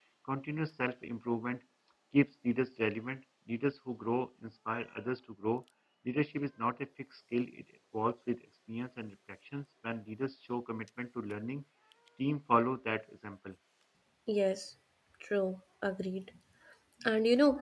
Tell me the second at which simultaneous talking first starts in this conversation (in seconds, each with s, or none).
none